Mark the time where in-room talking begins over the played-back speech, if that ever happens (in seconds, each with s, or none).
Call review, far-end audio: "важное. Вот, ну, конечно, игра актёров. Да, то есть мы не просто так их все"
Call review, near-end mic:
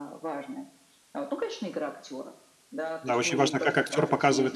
3.0 s